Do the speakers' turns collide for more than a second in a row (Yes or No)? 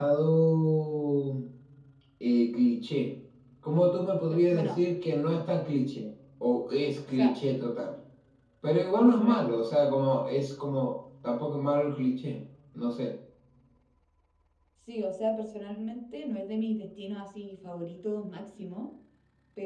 No